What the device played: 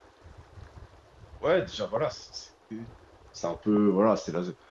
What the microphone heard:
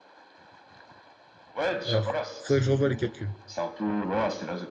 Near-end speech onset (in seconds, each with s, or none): 1.8 s